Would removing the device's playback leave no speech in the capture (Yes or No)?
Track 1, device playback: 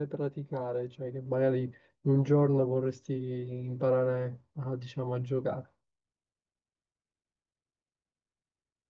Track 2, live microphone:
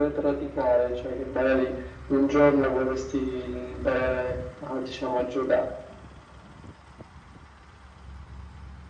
Yes